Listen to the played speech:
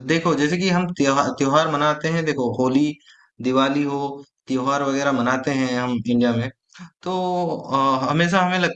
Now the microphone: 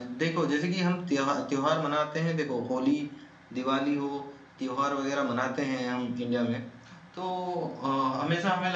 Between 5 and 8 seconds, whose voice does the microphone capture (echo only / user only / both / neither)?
echo only